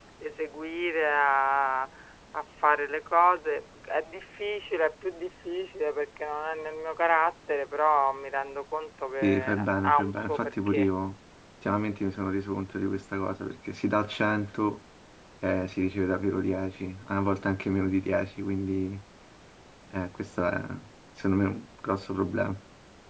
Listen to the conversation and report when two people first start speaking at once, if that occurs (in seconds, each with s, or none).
9.2 s